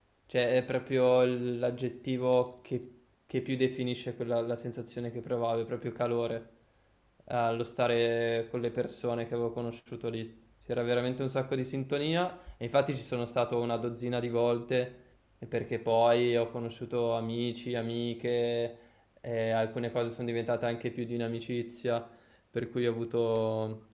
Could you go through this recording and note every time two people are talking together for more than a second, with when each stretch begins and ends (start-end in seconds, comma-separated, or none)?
none